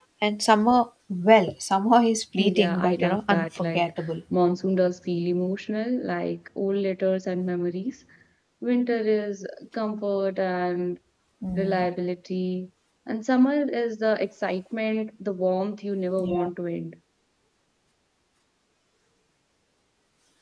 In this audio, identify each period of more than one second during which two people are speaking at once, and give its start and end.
2.4-4.1

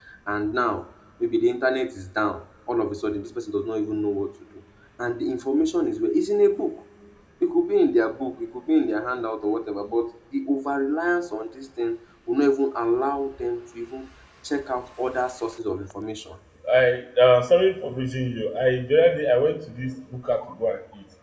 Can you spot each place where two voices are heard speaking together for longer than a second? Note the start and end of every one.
none

